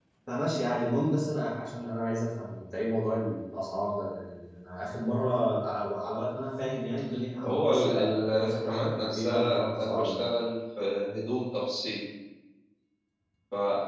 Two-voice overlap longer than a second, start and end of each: 7.4-10.2

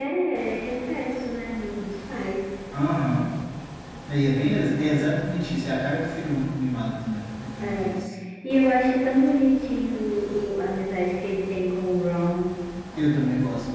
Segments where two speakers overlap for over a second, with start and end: none

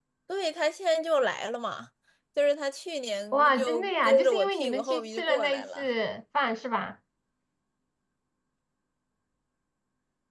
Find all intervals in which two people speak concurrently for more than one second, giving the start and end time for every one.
3.3-5.8

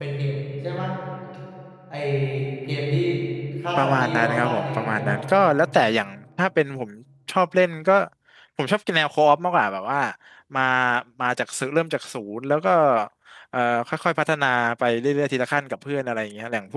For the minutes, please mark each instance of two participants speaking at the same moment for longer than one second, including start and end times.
3.8-5.2

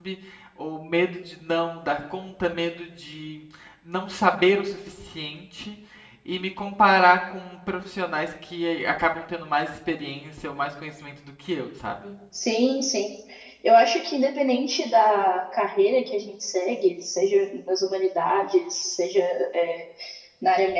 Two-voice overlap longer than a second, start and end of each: none

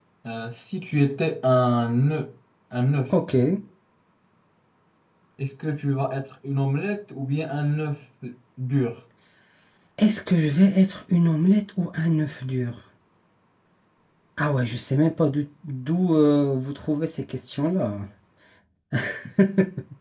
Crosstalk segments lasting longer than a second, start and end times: none

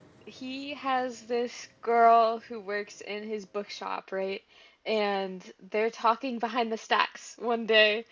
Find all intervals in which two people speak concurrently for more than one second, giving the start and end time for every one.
none

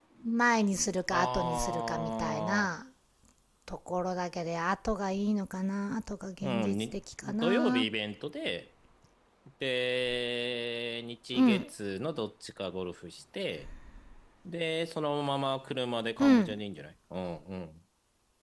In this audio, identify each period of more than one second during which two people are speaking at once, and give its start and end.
1.1-2.7, 6.4-7.9

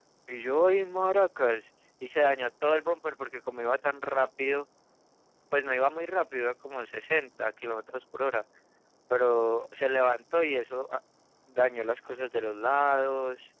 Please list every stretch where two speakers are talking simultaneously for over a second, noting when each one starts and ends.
none

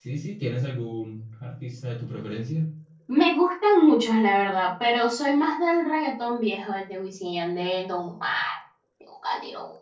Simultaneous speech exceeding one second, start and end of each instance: none

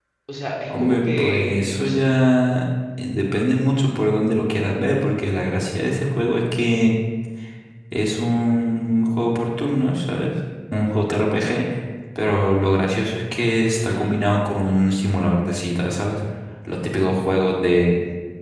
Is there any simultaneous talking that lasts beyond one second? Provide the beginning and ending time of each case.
0.8-2.0

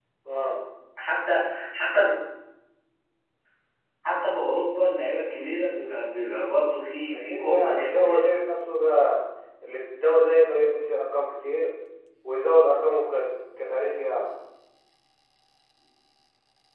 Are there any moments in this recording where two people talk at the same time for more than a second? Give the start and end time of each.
7.1-8.4

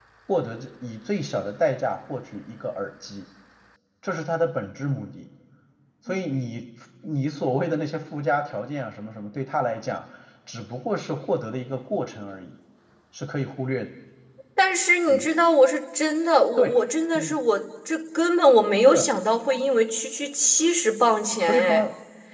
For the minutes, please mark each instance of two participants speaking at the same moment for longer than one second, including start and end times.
none

